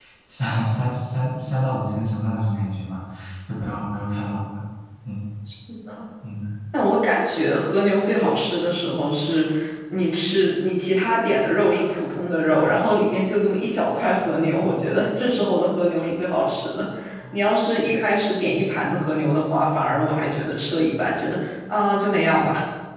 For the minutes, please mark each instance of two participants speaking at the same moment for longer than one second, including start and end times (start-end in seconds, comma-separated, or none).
none